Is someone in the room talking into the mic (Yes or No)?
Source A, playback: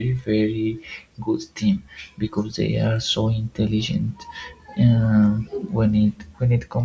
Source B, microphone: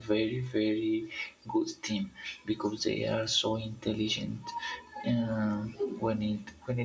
No